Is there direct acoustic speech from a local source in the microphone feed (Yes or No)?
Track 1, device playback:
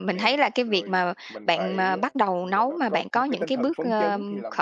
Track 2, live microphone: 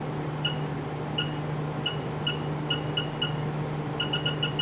No